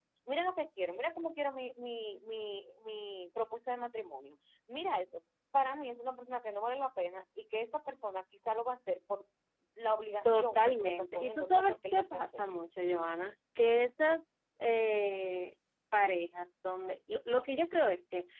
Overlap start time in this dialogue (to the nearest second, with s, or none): 10 s